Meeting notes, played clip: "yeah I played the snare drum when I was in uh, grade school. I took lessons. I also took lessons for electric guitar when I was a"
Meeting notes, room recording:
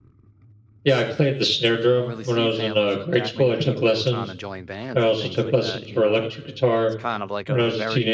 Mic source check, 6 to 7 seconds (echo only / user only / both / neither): both